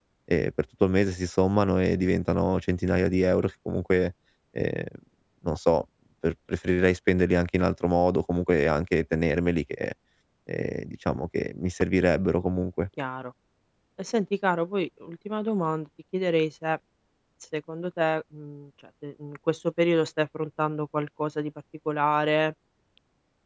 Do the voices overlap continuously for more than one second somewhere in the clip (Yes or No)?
No